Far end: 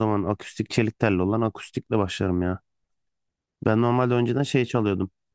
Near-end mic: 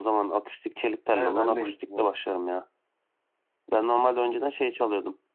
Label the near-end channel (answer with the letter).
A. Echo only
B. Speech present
B